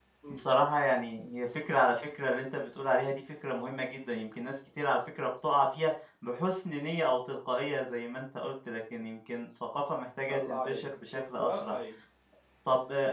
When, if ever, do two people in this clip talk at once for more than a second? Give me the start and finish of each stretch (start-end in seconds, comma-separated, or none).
10.3-11.7